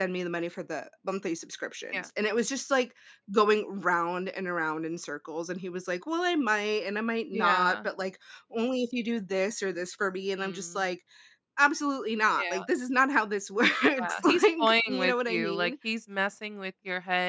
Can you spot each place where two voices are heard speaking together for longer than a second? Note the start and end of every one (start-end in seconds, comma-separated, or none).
14.0-15.7